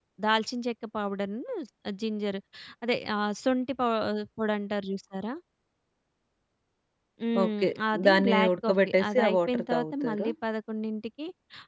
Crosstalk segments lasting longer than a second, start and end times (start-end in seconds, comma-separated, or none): 8.1-10.3